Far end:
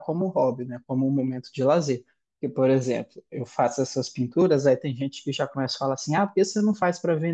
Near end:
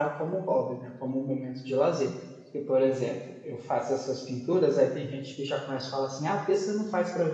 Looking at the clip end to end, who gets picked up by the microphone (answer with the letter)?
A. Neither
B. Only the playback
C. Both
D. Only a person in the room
B